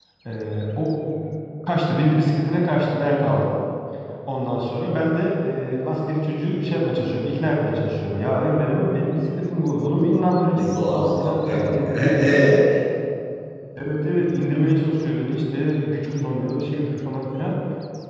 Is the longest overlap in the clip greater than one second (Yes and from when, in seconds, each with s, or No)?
Yes, from 10.6 s